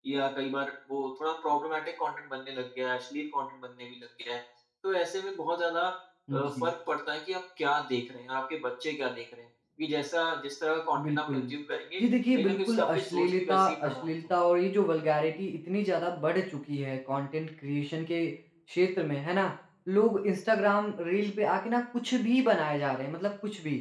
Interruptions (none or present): present